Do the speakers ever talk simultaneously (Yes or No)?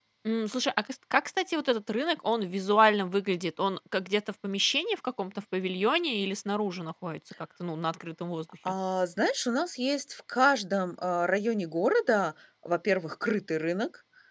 No